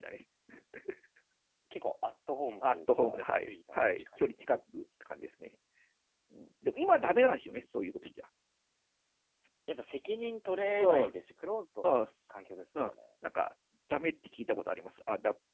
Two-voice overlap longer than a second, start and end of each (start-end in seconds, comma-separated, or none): 2.7-4.1